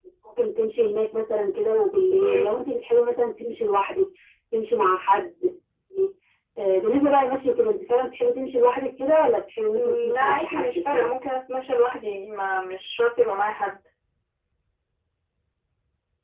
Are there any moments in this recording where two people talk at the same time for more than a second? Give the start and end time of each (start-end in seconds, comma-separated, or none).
9.7-11.1